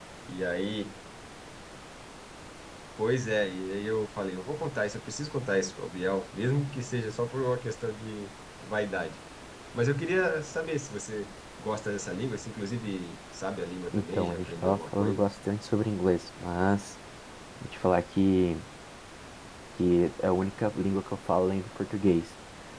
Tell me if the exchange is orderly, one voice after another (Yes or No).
No